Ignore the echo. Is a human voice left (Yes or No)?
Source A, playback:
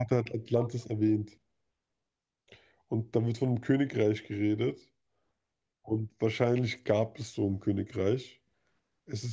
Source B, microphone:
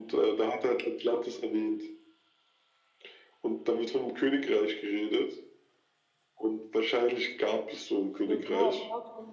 Yes